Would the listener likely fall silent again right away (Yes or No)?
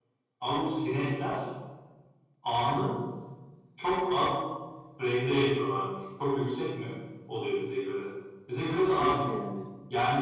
Yes